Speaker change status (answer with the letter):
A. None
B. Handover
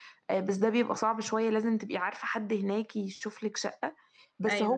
A